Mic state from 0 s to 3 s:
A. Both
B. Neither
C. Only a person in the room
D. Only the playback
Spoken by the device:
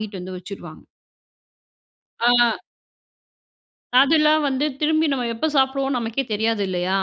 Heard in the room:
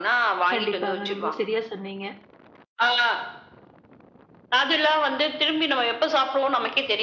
A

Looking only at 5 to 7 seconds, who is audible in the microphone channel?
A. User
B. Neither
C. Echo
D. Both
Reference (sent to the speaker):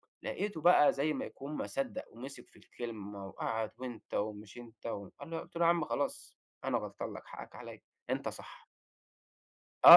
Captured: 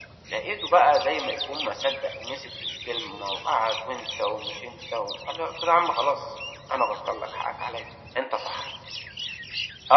C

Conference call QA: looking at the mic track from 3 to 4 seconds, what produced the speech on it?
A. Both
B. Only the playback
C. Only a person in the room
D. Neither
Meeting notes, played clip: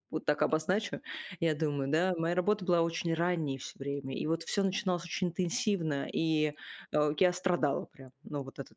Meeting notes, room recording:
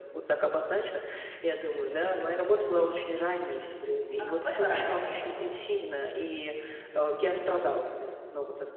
B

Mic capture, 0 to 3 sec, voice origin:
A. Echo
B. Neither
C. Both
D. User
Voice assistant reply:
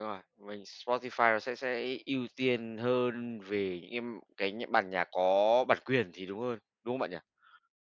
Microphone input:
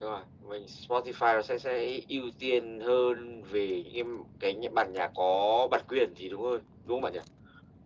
A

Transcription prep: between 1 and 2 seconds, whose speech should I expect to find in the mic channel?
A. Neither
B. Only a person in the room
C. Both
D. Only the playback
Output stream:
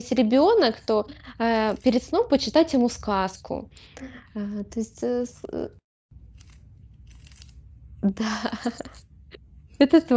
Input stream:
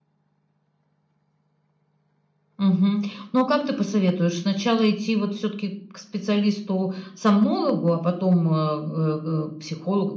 A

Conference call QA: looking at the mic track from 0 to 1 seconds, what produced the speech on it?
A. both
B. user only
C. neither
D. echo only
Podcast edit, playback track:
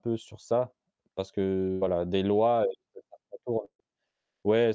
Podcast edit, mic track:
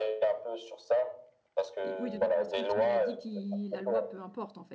D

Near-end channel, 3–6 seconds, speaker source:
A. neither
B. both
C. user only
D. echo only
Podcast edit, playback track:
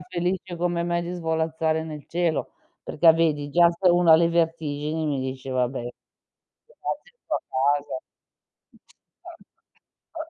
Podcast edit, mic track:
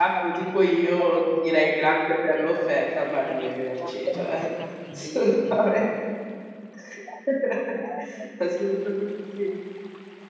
B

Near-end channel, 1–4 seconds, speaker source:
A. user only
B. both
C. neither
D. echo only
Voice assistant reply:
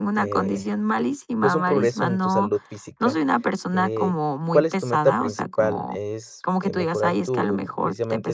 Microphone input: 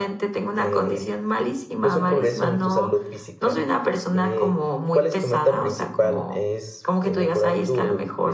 D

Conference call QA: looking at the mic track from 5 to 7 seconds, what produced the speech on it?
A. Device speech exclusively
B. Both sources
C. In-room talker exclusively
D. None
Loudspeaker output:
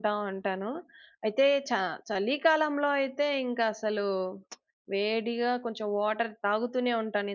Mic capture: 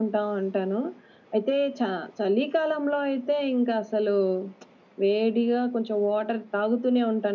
A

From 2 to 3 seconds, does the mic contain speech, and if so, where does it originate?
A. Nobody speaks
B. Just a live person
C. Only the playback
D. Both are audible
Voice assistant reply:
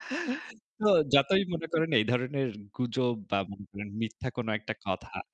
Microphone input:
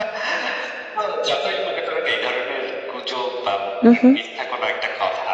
C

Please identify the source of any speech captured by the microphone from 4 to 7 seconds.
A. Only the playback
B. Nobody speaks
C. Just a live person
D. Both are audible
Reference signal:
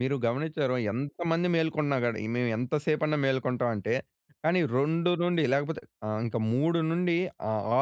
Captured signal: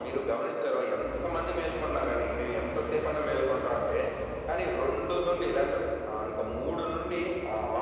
A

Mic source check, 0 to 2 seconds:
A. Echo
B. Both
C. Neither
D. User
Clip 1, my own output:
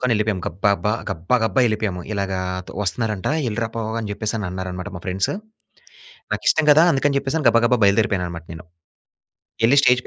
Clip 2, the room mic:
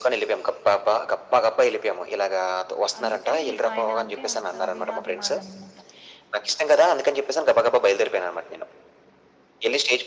A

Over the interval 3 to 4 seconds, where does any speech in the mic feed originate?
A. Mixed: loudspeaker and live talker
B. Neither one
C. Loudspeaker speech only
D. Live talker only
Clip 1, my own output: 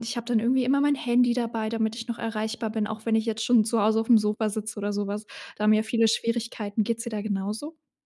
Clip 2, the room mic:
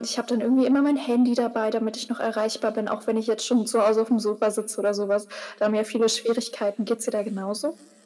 C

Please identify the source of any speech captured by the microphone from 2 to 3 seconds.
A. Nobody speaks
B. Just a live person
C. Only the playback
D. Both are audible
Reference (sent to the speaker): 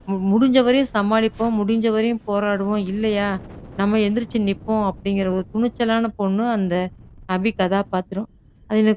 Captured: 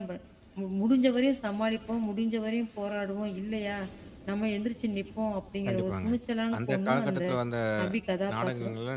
C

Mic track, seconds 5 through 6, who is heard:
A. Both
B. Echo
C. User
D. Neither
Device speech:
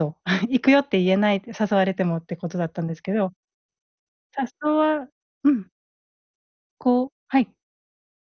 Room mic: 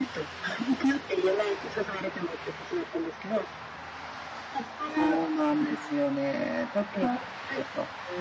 A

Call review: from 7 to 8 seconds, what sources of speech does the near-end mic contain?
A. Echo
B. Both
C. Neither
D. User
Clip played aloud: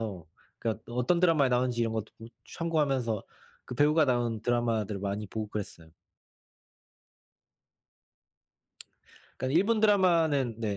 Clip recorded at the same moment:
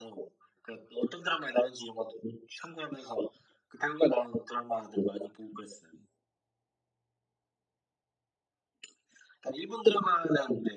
C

